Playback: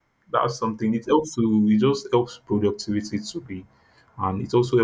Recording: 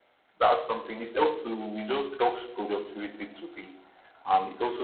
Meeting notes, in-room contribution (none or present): none